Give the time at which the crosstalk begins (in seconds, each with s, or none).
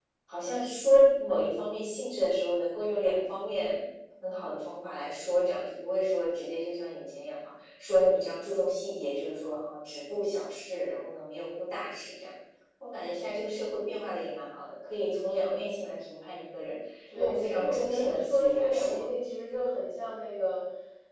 17.1 s